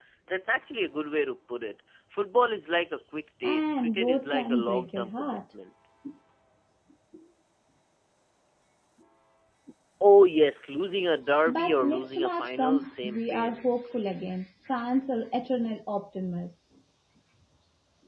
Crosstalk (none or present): present